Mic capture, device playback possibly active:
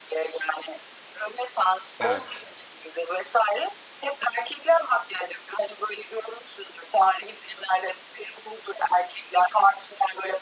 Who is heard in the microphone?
both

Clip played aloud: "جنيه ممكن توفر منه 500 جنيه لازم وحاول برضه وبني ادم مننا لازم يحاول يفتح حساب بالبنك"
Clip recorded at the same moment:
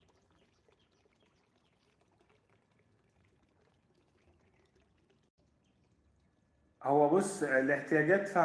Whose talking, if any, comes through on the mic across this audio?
user only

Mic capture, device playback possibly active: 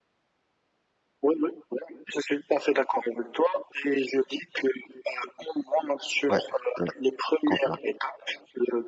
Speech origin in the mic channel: both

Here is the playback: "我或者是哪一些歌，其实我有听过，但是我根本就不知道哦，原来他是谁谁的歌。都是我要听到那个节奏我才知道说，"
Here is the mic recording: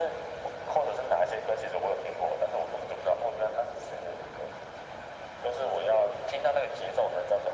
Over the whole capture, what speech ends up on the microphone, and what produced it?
echo only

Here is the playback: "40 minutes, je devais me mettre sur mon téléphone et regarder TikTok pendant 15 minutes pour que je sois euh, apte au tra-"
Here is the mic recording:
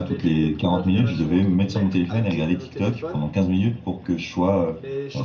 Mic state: both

